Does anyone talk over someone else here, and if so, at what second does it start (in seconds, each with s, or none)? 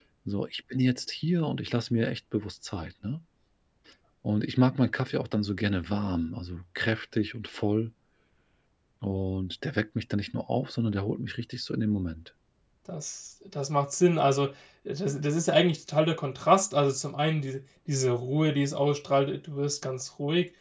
none